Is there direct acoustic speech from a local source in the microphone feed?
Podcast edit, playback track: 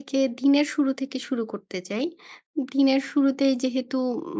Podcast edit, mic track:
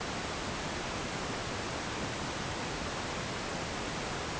No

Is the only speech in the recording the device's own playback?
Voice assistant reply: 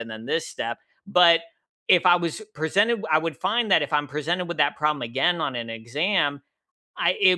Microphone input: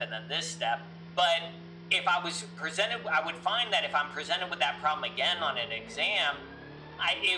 Yes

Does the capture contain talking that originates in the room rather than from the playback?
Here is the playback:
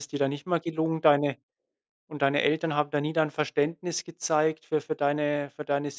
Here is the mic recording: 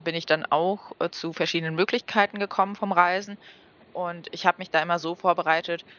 Yes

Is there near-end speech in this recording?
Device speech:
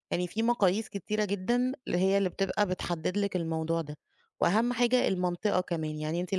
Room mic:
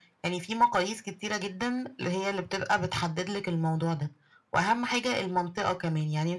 No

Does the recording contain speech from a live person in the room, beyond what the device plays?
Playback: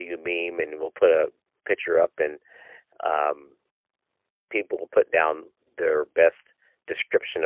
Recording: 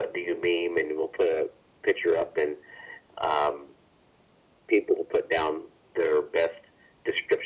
No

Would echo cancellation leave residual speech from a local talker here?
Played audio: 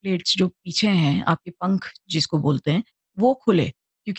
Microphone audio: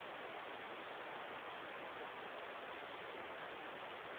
No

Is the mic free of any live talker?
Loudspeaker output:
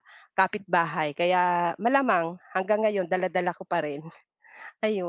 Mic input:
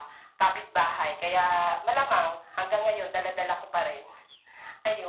Yes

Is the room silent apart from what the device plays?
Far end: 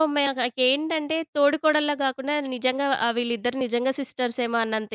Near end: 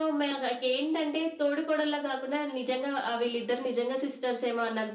Yes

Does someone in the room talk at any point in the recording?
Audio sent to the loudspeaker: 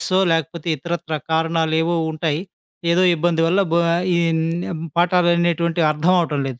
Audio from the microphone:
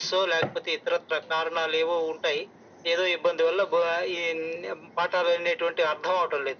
No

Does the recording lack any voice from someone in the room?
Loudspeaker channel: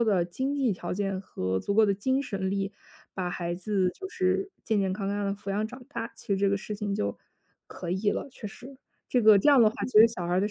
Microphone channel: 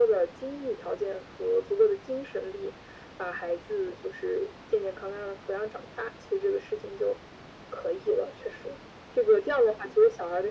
Yes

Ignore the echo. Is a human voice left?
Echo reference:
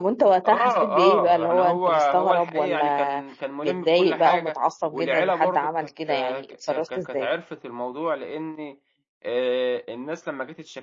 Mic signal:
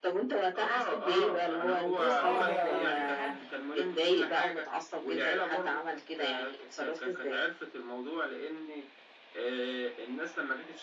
Yes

